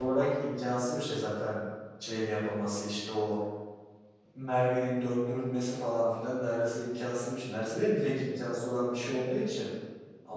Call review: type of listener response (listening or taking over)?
listening